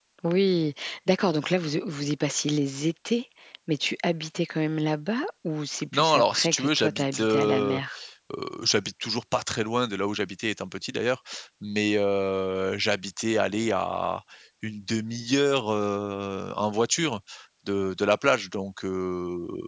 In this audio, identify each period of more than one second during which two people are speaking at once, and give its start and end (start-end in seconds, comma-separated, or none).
5.9-7.8